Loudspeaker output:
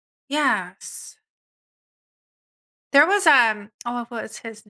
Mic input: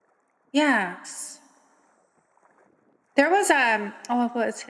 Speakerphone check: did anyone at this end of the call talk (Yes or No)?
No